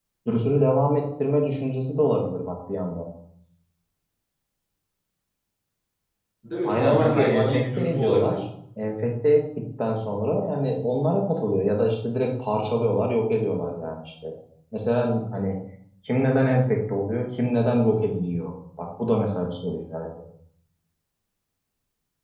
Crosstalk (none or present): present